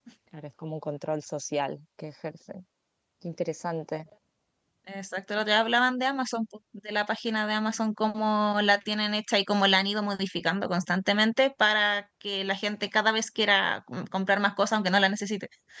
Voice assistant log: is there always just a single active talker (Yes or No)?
Yes